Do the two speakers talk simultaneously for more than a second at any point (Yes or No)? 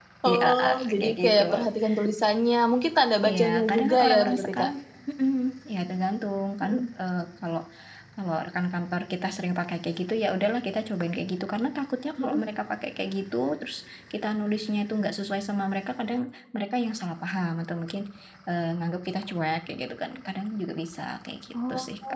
Yes